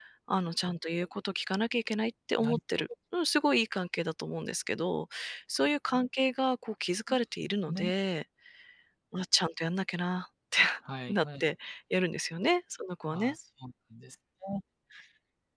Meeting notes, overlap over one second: none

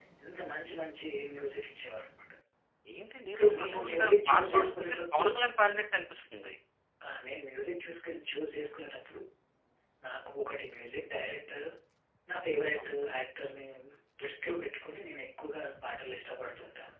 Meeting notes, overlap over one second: present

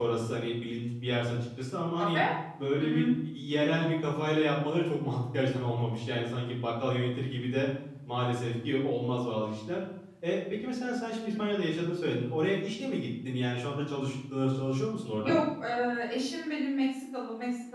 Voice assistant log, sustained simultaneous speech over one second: none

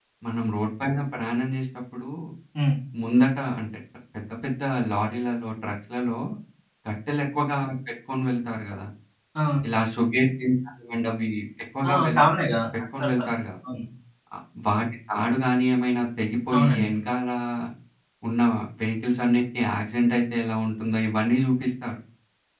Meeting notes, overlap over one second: none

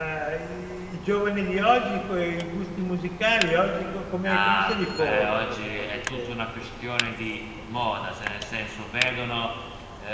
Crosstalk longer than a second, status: present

